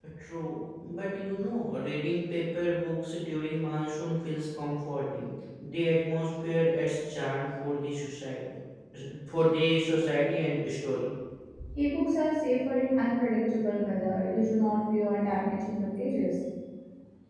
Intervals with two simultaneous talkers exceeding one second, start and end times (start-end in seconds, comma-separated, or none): none